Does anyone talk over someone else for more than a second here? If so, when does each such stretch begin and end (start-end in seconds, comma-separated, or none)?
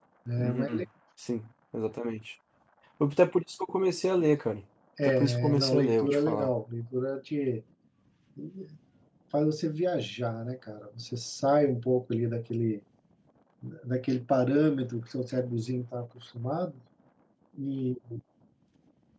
5.0-6.5